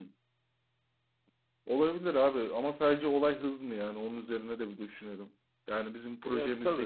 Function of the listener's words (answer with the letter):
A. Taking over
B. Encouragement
B